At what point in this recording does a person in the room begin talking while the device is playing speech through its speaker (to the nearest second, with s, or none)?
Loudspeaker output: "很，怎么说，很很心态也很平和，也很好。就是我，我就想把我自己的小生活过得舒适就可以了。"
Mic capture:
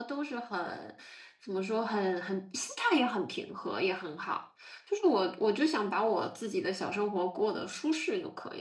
none